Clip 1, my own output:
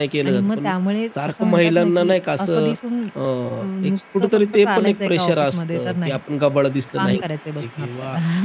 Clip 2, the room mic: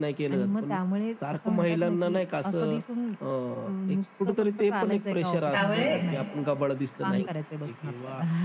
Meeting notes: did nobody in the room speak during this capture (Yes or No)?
No